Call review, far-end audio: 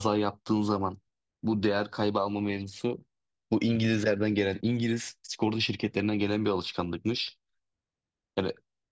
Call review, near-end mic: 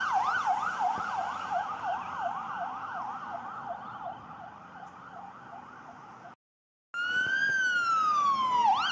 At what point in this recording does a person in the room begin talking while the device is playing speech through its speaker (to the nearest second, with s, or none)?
none